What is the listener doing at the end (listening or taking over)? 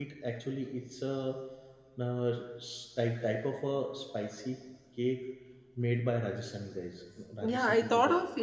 taking over